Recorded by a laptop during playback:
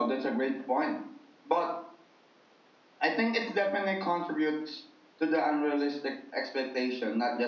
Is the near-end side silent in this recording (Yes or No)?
Yes